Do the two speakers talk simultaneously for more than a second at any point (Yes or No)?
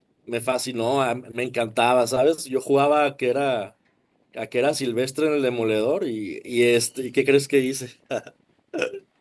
No